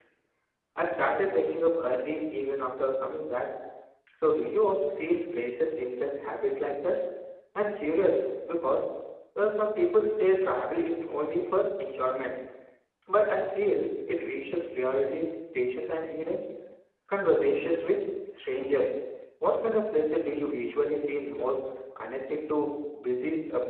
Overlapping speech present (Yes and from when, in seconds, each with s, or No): No